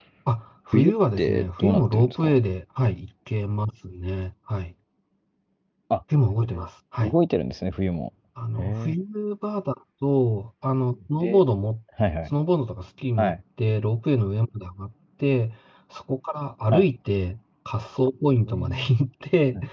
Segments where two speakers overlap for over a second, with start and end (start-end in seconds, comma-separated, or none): 0.7-2.4